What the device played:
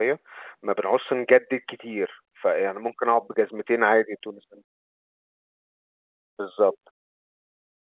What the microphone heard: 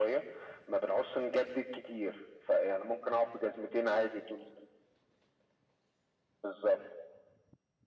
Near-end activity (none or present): none